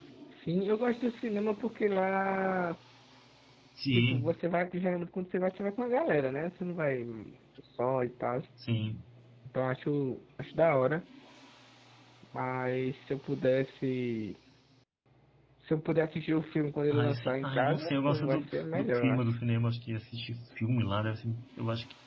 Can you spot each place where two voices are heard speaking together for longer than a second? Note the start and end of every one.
16.9-19.2

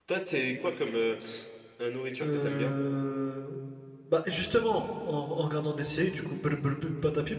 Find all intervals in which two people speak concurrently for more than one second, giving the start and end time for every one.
none

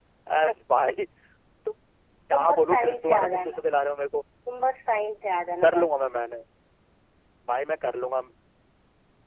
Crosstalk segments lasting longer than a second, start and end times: 2.3-3.6

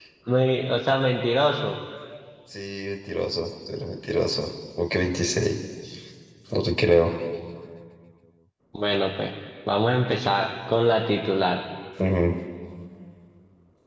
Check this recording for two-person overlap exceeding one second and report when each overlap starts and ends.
none

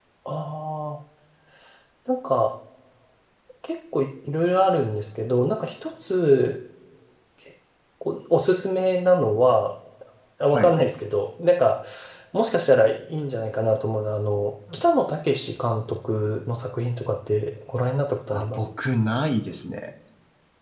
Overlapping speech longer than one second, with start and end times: none

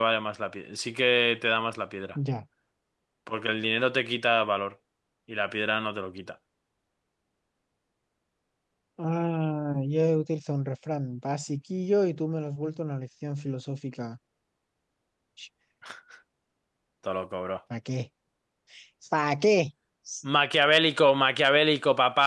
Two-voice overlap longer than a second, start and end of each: none

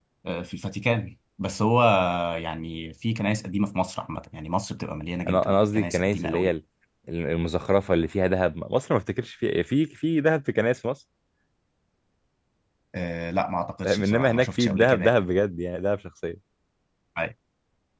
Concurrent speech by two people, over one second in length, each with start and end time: 5.3-6.5, 13.8-15.1

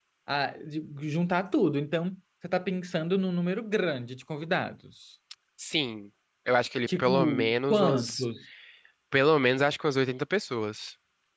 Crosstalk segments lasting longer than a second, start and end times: 6.9-8.2

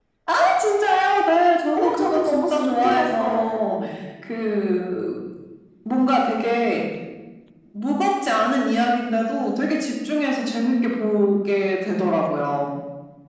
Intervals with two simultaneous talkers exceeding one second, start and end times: 1.7-3.8

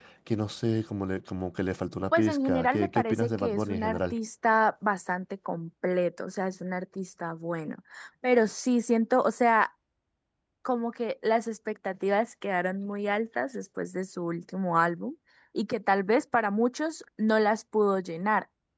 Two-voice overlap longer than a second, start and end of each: 2.1-4.2

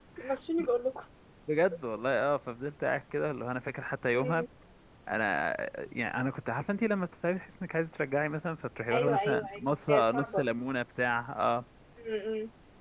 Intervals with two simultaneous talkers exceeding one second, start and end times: 8.9-10.4

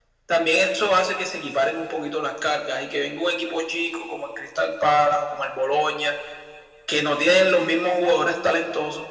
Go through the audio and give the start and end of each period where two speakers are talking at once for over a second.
none

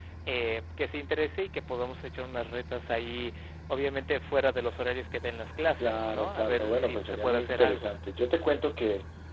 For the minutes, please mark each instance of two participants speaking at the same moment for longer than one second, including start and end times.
5.8-7.9

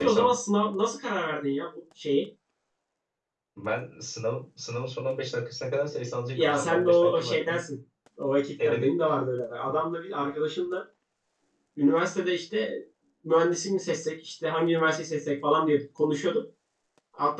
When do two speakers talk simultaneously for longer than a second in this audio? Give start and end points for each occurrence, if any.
6.3-7.6

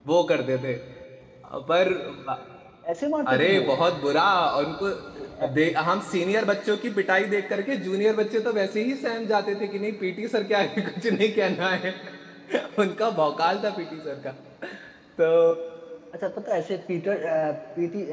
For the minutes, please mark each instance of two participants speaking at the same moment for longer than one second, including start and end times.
none

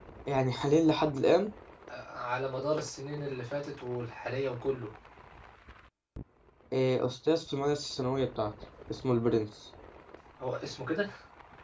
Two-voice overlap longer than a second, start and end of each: none

